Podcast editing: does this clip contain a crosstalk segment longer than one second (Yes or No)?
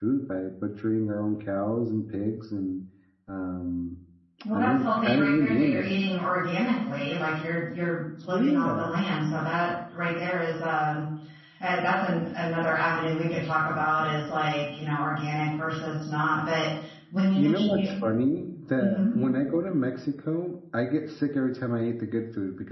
Yes